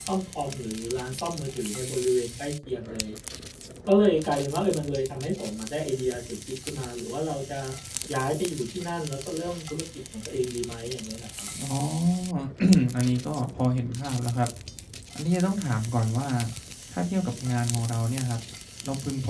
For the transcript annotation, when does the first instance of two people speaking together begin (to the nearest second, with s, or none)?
none